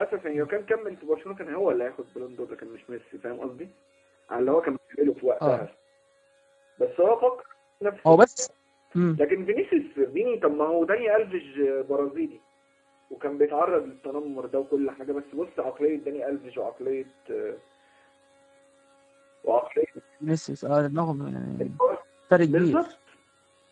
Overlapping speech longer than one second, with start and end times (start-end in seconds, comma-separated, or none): none